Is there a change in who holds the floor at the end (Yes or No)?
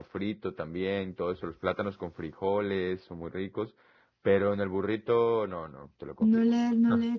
Yes